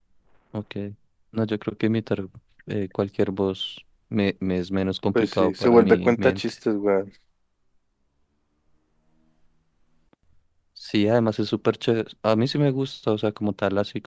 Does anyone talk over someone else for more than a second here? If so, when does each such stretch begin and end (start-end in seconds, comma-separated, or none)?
5.2-6.4